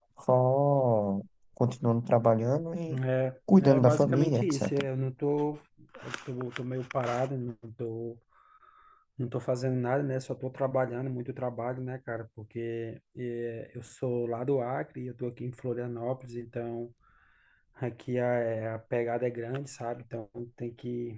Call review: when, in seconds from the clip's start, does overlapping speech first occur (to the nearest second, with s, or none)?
4 s